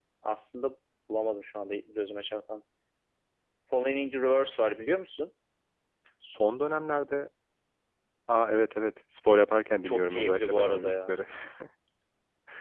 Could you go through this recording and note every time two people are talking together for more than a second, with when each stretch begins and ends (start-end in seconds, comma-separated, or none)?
9.8-11.1